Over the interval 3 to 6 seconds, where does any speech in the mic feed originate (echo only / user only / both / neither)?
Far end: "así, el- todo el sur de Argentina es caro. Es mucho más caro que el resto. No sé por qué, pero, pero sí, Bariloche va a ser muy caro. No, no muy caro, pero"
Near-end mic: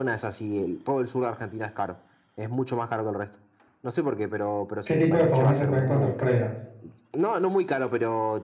both